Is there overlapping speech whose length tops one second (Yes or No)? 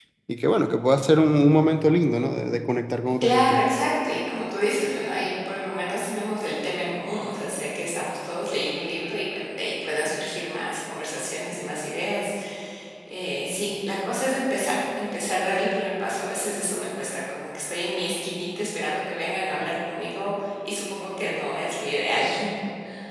No